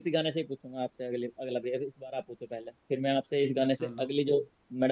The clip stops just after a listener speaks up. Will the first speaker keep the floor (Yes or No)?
Yes